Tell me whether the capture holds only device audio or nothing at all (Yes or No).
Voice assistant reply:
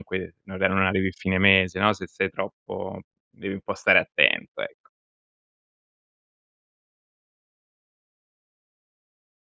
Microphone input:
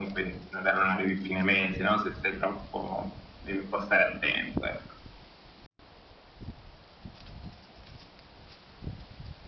Yes